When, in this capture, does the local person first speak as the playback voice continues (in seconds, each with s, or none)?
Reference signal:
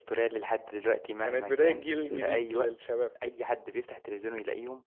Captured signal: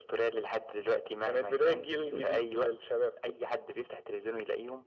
none